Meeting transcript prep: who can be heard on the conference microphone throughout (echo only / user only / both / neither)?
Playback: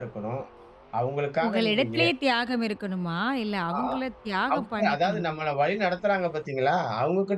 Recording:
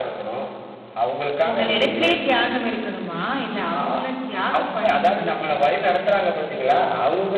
echo only